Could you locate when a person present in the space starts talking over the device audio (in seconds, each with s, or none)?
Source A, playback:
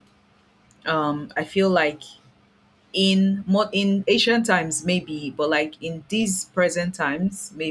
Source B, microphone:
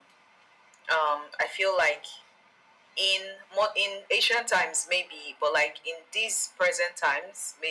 none